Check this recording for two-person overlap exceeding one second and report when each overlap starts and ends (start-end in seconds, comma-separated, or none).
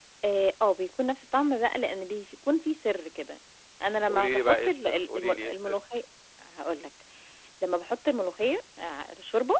4.1-5.8